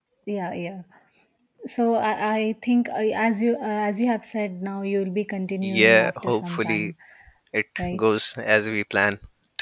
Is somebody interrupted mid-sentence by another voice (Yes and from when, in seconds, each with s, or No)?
Yes, from 5.6 s